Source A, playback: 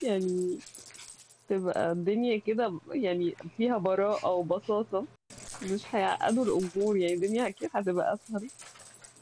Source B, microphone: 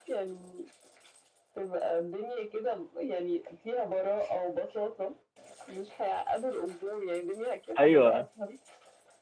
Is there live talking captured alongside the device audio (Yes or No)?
Yes